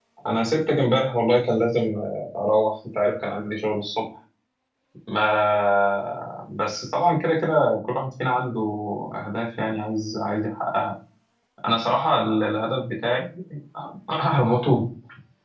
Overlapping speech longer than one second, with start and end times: none

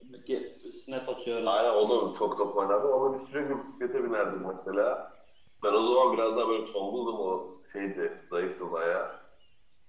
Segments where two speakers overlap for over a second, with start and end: none

